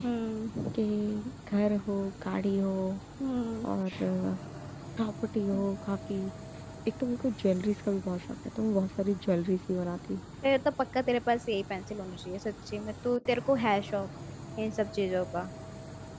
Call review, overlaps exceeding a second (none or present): none